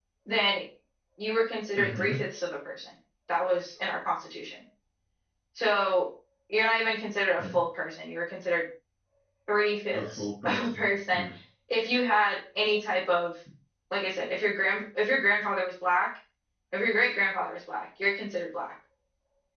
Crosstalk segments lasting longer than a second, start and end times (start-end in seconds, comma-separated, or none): 9.9-11.2